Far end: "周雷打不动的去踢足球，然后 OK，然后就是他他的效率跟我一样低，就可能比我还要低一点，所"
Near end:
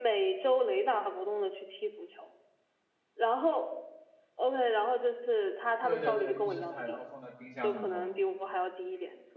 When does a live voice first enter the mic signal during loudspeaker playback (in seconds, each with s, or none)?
5.8 s